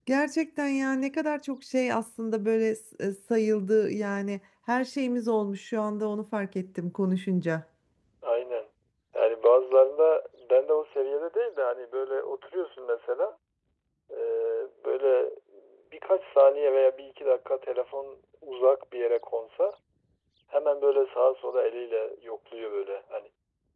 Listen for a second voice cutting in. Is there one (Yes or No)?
No